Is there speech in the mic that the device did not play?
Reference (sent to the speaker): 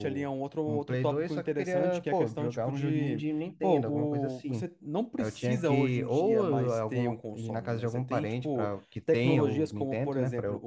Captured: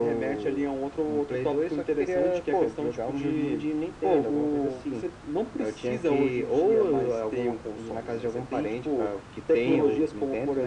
No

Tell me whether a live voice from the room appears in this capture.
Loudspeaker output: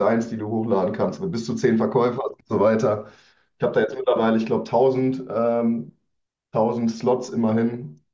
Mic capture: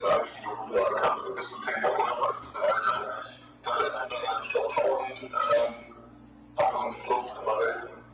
No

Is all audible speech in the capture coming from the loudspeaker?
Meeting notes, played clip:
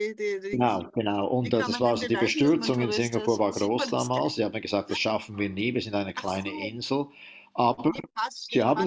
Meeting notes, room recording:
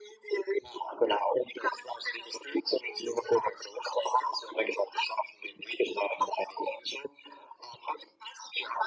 Yes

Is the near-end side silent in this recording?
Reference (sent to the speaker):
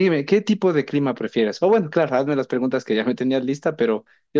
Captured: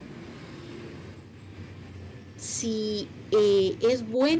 No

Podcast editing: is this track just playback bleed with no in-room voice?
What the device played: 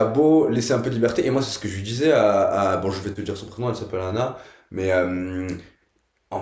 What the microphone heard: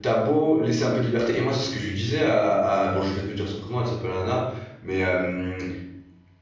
Yes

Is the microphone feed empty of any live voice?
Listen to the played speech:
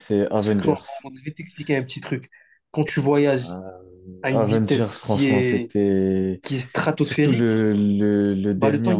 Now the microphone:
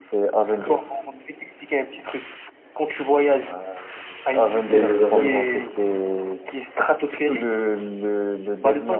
No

